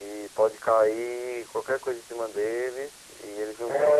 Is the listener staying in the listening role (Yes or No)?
No